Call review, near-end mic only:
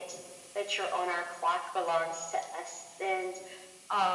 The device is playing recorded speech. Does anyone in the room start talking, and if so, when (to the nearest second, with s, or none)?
none